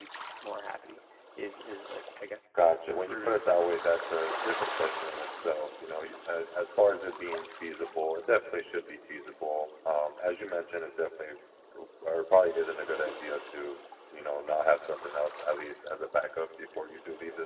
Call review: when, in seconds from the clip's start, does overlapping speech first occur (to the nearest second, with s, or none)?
3 s